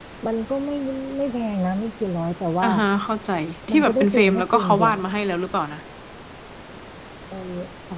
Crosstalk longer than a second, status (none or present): present